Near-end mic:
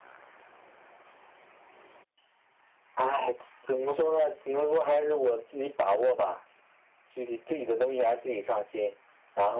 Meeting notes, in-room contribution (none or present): none